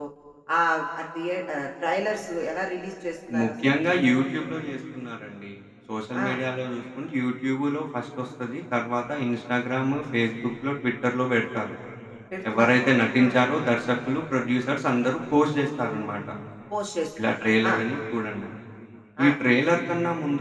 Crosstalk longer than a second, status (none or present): none